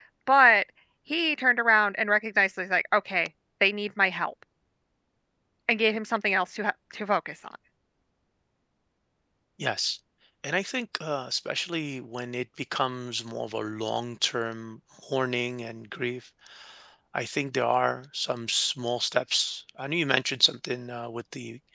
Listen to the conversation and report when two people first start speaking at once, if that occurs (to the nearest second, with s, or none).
none